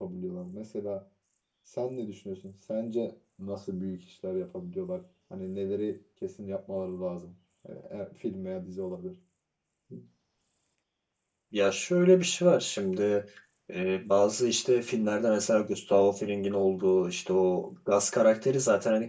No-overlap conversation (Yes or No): Yes